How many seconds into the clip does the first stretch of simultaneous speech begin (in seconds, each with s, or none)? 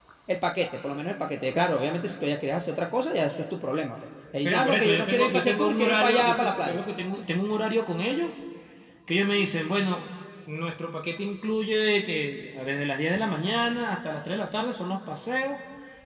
4.4 s